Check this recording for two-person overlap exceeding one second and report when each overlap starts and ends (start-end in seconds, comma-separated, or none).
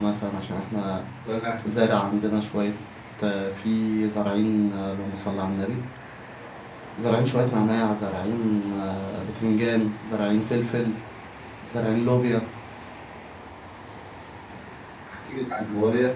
none